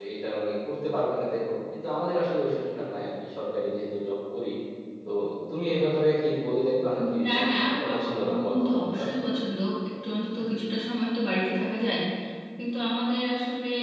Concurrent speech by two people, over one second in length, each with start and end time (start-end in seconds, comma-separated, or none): 6.9-9.0